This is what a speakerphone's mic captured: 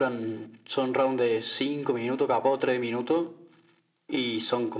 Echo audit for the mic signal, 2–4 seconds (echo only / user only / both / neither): echo only